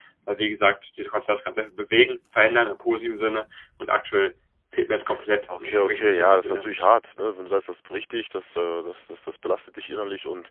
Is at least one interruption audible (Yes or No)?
Yes